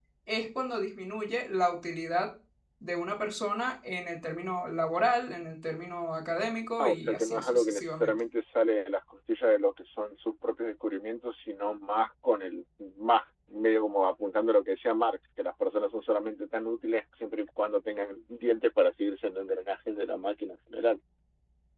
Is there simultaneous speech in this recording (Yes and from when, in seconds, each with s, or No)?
Yes, from 6.8 s